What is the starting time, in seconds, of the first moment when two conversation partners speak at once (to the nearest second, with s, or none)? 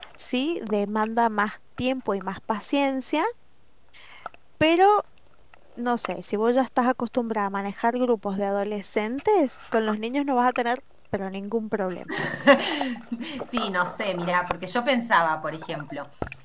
none